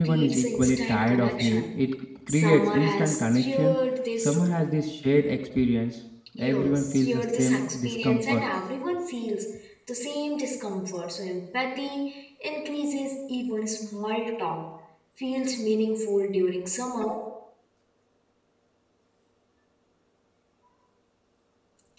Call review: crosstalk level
present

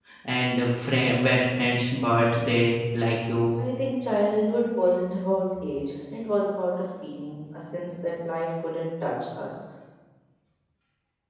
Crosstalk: none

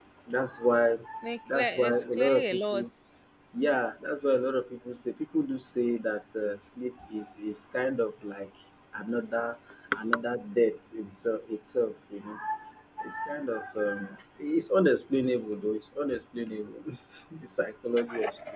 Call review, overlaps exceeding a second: present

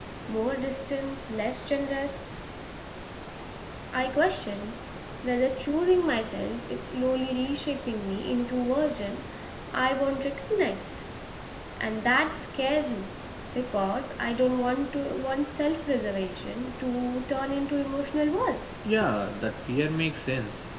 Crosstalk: none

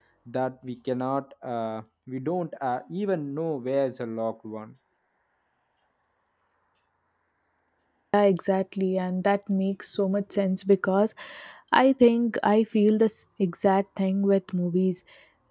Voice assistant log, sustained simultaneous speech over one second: none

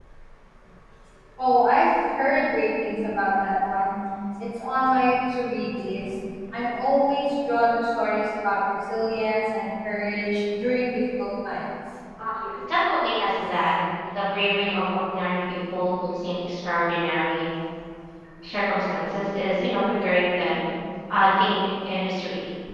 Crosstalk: none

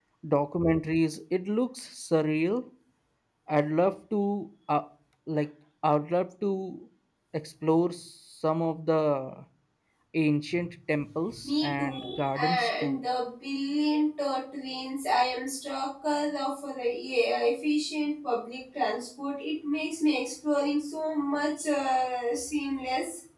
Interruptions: present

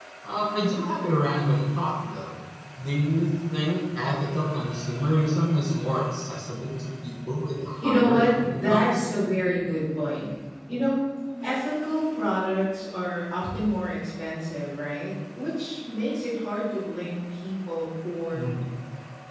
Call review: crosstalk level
present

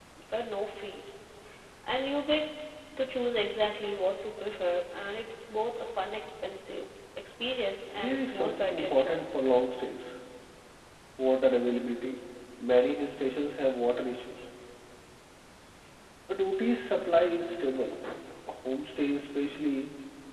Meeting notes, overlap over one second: present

